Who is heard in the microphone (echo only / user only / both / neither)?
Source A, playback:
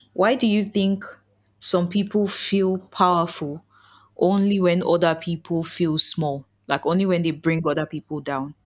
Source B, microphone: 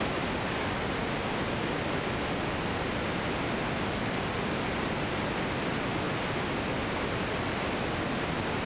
neither